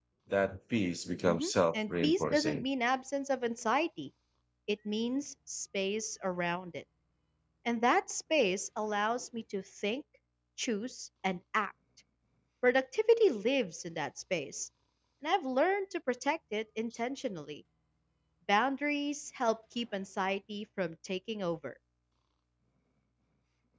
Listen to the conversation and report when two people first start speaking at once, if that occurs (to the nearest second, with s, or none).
1 s